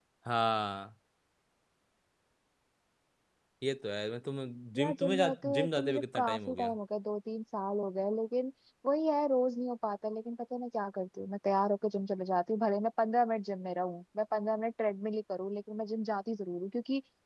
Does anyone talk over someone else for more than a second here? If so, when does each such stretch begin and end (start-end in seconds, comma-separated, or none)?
4.8-6.8